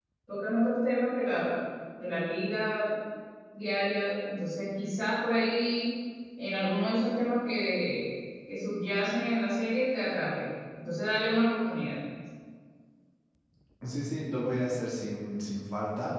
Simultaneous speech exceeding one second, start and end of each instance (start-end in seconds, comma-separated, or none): none